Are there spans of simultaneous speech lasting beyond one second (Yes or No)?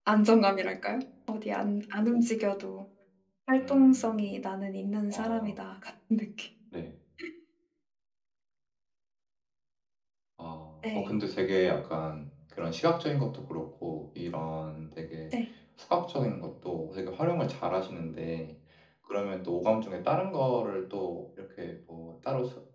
No